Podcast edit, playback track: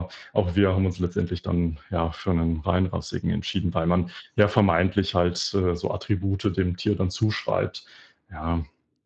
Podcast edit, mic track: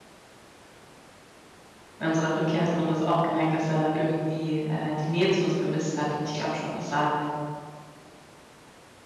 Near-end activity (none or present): present